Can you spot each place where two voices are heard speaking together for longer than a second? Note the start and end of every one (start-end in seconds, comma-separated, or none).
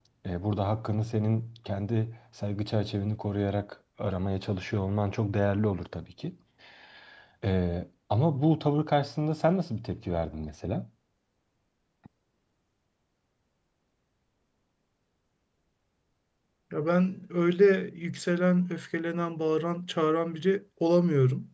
none